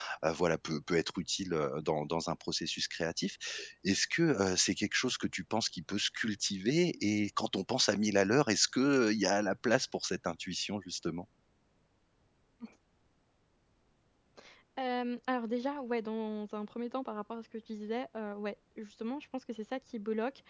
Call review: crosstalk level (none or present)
none